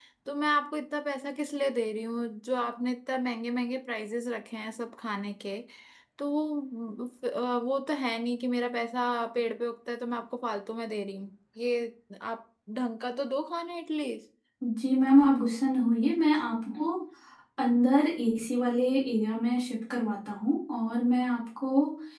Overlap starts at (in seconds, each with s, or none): none